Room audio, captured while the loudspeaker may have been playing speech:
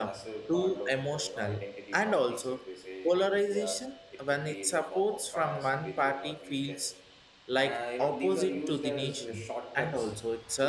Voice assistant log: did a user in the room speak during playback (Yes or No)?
Yes